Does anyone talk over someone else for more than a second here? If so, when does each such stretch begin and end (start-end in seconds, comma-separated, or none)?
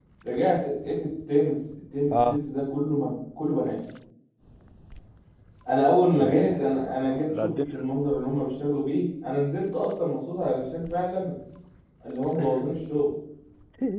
6.2-7.8